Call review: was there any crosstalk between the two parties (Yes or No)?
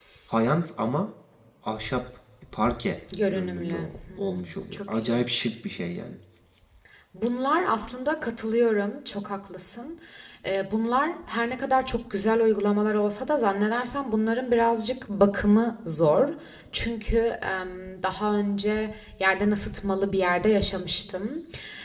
Yes